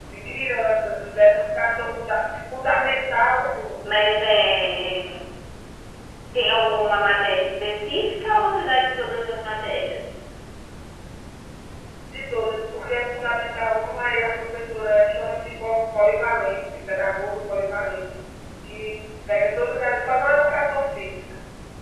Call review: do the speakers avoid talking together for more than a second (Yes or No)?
Yes